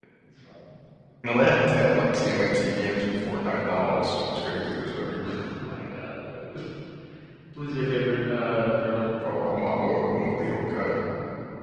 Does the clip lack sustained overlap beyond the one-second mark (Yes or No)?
Yes